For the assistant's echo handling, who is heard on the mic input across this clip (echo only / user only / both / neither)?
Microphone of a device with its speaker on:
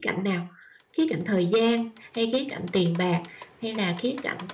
user only